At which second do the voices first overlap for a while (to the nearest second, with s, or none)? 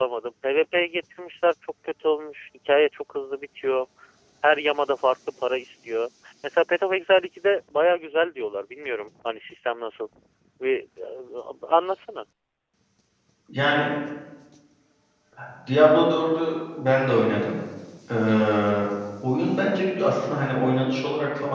none